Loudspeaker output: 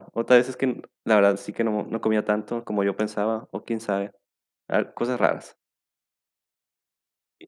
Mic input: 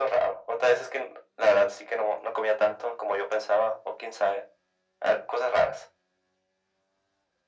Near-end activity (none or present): none